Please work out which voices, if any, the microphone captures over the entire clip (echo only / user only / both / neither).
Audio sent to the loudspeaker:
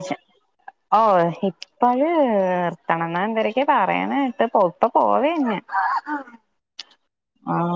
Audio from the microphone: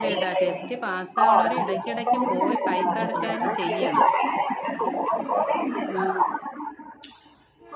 both